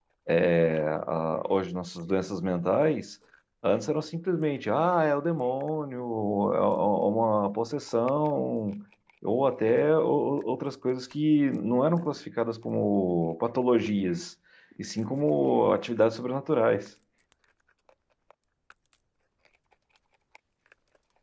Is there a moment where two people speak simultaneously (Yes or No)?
No